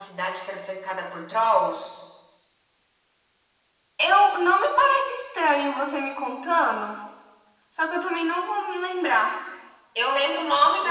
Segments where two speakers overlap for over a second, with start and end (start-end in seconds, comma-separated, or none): none